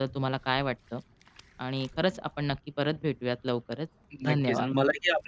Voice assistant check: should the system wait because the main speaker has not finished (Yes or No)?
No